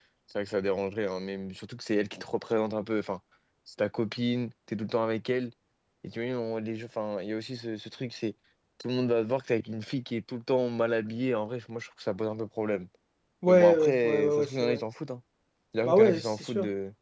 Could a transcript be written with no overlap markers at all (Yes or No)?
No